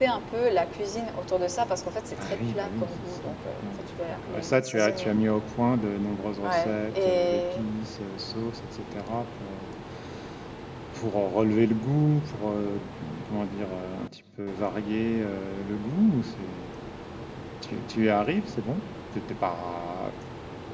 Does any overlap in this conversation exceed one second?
Yes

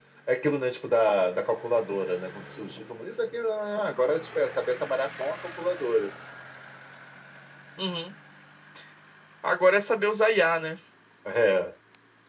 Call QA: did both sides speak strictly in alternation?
Yes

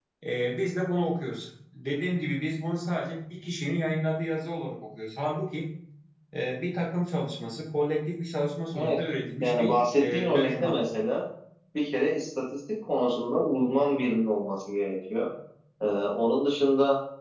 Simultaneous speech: Yes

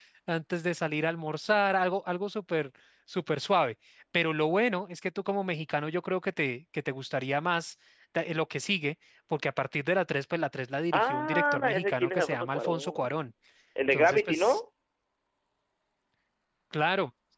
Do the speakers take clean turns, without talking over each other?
No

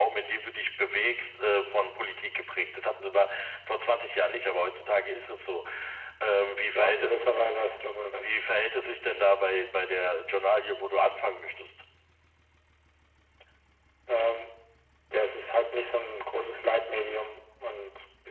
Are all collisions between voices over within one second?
Yes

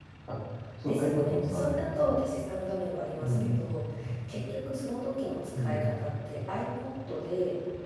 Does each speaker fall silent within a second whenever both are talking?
No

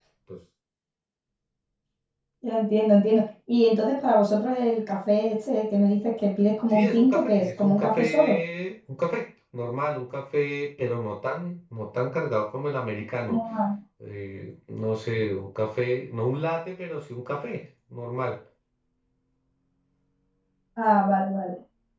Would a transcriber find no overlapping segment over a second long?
No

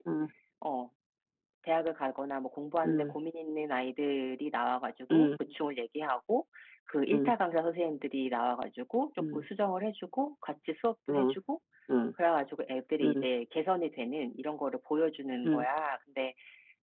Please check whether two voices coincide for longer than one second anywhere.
No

